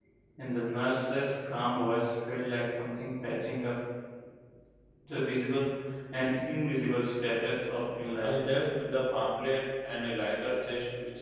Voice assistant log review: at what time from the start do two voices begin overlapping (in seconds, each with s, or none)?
none